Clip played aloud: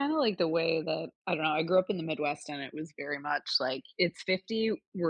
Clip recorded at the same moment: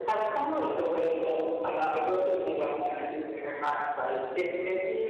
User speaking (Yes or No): No